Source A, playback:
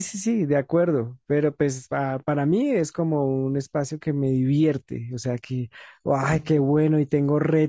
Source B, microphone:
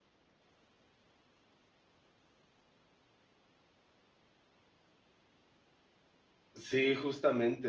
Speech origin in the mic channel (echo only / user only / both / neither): user only